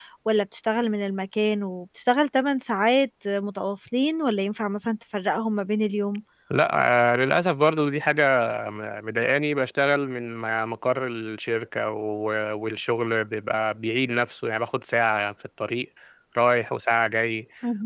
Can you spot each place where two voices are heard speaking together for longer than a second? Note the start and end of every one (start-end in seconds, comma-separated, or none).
none